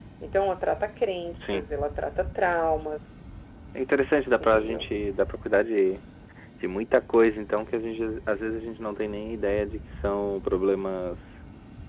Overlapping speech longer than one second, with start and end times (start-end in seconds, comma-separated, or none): none